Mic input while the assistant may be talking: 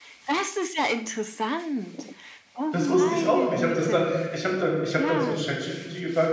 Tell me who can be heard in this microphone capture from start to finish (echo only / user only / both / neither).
both